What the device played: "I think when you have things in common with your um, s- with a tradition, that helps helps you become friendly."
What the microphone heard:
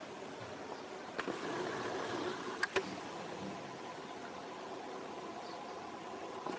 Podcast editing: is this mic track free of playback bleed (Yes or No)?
Yes